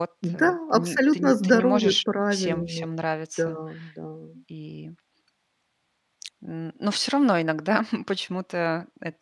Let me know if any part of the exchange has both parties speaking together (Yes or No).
Yes